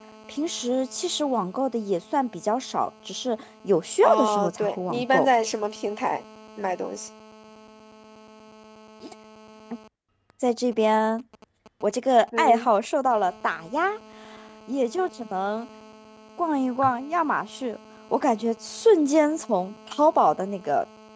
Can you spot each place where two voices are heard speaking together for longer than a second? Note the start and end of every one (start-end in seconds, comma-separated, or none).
4.0-5.3